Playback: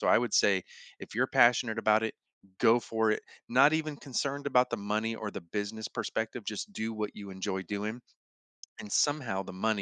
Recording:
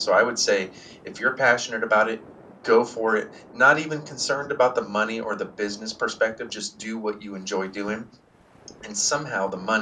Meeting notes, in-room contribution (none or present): none